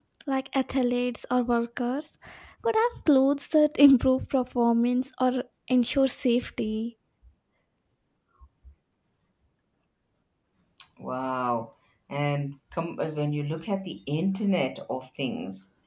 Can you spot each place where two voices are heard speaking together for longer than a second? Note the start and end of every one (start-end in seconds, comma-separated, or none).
none